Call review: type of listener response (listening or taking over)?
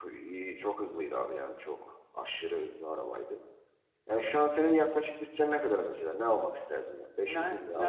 taking over